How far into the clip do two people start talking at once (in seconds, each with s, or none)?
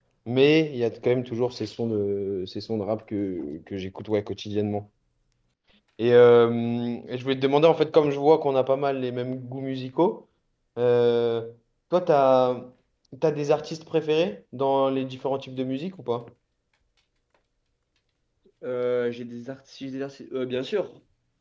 none